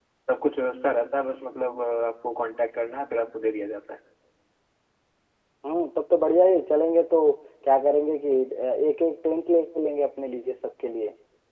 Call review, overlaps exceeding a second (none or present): none